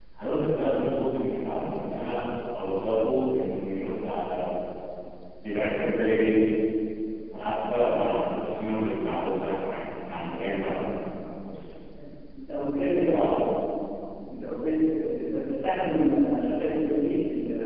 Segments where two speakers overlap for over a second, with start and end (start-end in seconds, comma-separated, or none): none